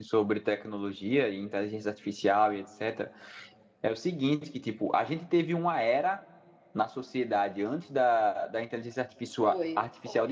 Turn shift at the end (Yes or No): No